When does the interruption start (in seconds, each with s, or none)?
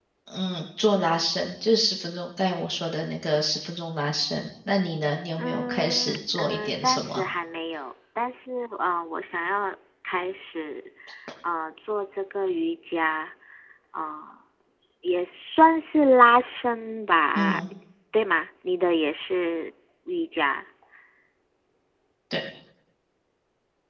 5.4 s